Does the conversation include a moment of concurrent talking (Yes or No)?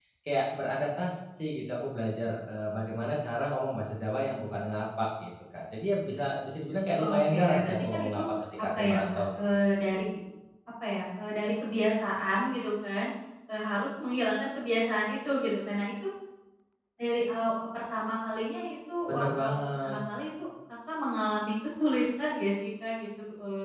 Yes